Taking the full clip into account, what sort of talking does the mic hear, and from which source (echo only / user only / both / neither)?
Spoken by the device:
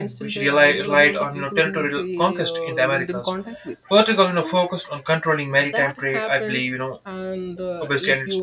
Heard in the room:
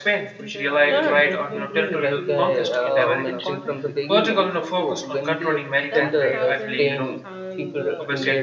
both